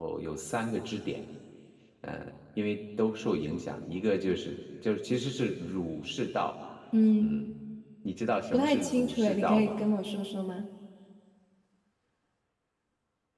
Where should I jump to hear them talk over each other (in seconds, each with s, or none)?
8.5 s